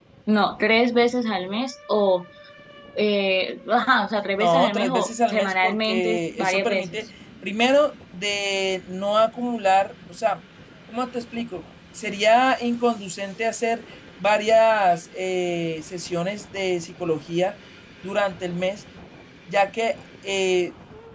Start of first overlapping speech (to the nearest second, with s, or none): 4 s